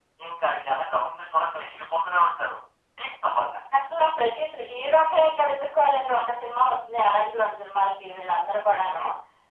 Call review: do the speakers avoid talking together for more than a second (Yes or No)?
Yes